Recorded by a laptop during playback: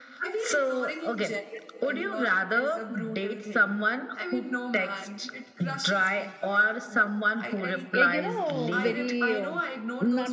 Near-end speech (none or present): present